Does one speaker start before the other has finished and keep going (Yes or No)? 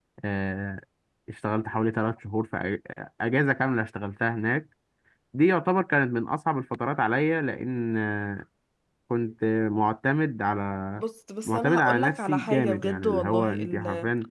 Yes